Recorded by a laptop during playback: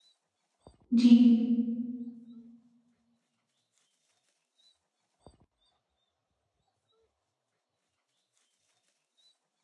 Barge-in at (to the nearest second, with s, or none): 1 s